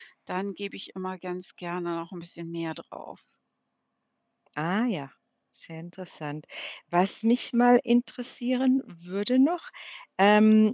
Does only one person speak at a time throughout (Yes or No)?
Yes